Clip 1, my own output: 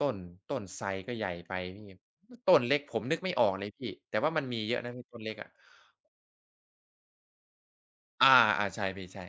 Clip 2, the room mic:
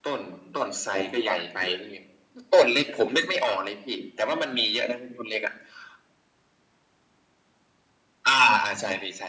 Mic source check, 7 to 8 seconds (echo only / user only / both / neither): neither